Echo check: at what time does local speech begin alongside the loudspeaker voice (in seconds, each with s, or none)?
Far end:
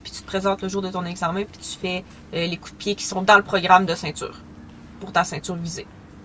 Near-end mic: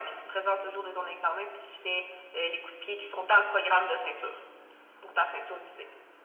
none